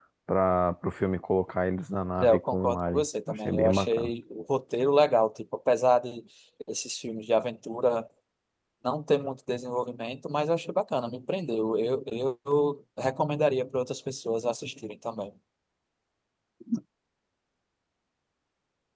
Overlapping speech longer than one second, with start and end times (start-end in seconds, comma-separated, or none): 2.2-4.1